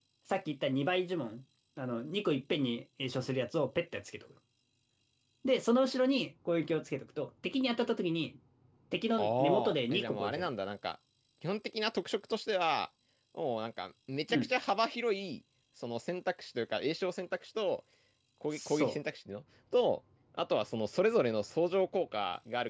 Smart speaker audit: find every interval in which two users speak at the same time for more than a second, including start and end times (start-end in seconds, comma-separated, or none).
9.2-10.5